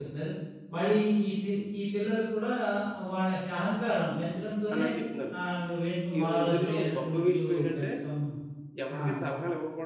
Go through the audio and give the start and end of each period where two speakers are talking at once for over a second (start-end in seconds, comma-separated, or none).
6.2-7.9